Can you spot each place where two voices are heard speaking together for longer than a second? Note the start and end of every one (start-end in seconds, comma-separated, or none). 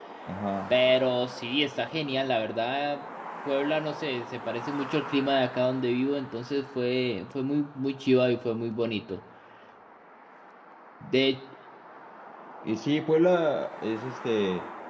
none